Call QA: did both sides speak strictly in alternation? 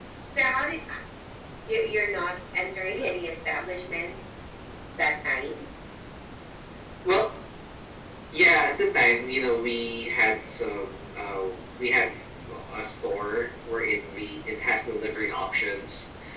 Yes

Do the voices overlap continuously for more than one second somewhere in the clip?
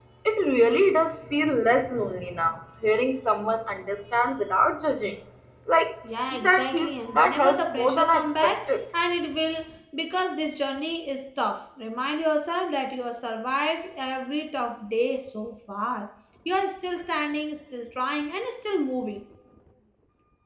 Yes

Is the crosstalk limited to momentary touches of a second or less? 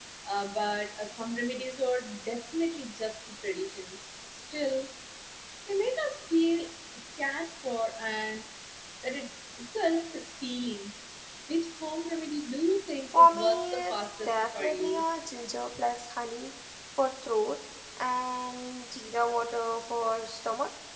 No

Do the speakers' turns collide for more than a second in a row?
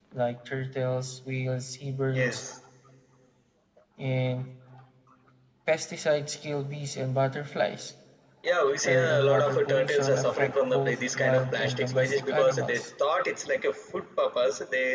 Yes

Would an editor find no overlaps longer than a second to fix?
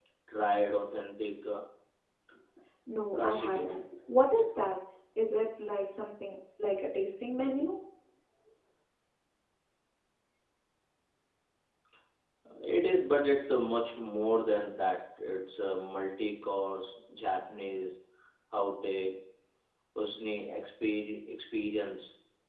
Yes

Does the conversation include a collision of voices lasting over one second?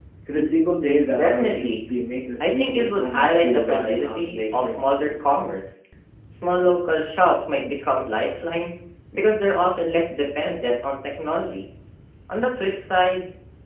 Yes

